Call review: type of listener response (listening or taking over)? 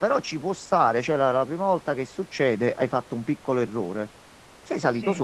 listening